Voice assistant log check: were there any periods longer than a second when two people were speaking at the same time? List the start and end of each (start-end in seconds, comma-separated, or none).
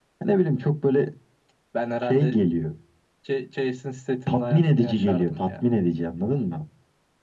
4.3-5.6